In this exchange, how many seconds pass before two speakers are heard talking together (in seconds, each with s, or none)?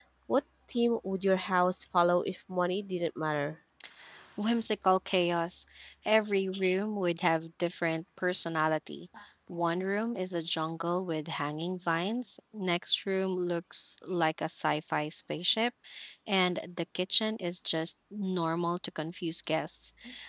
none